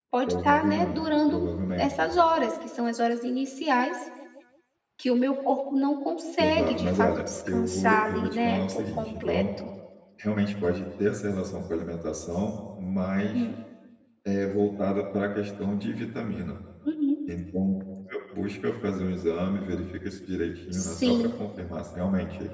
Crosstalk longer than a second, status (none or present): present